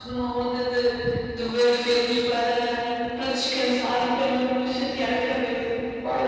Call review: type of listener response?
taking over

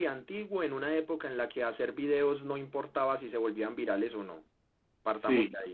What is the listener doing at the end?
listening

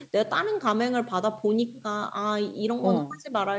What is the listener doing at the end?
listening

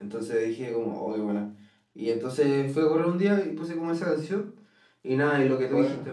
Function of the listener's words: listening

